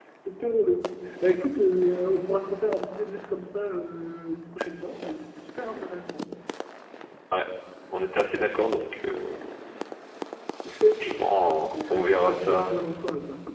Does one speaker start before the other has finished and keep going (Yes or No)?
Yes